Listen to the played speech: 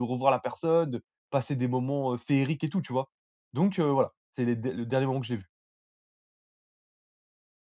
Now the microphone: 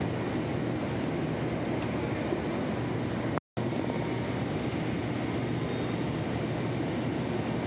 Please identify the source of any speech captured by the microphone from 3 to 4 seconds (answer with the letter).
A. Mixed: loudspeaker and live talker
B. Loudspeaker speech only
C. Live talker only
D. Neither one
D